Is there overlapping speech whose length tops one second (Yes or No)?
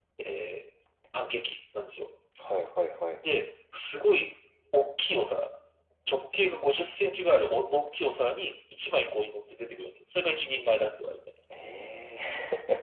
No